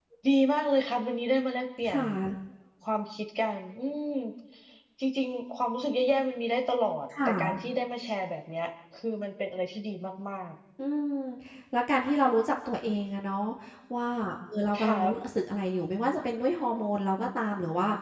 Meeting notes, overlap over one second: none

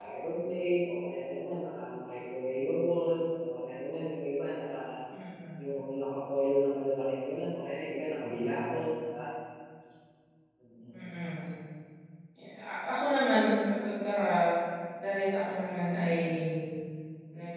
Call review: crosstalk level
none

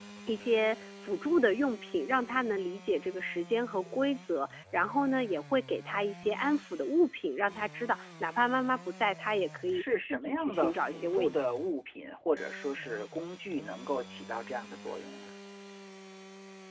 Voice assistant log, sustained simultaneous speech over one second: present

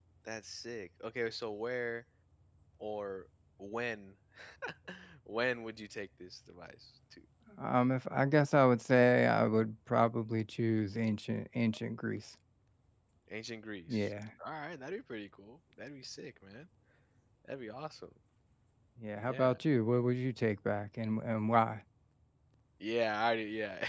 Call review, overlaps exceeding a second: none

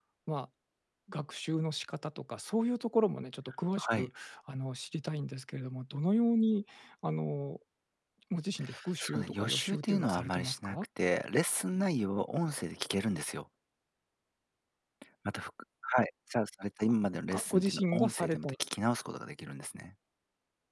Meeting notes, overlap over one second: present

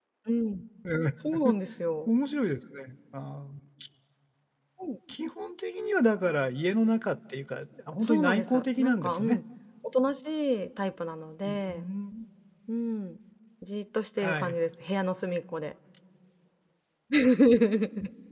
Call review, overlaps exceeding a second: present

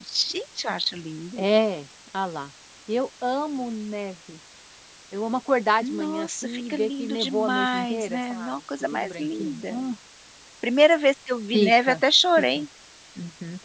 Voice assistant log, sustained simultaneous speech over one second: present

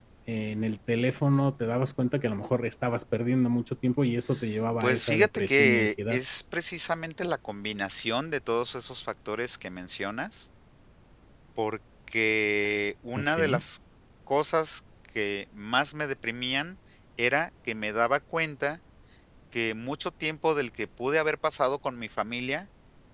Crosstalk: present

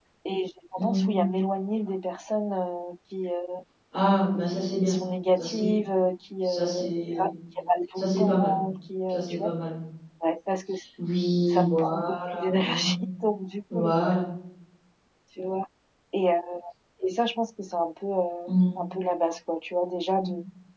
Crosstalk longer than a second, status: present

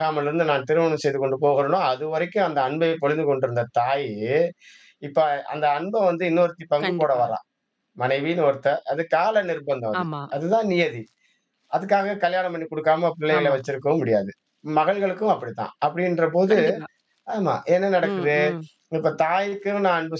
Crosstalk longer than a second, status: none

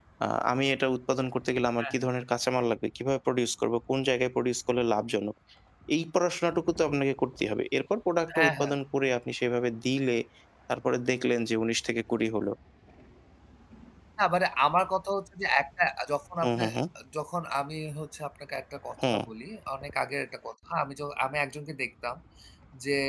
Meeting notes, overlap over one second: none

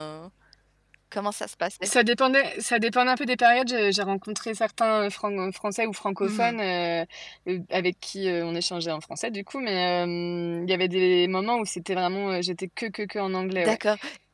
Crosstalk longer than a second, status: none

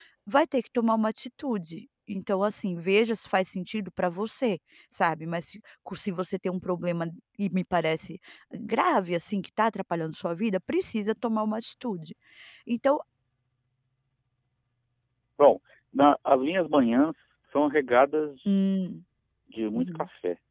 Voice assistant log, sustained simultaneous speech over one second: none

